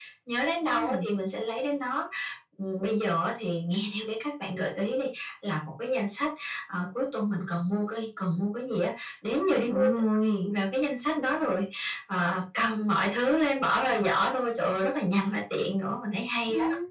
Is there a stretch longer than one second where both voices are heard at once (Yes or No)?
No